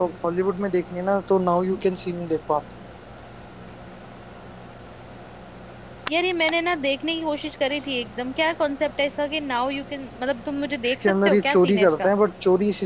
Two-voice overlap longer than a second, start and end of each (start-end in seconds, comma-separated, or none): 10.8-12.1